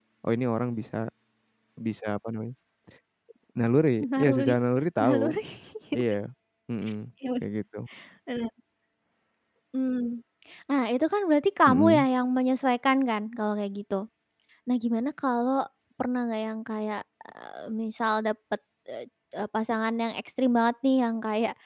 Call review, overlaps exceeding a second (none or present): none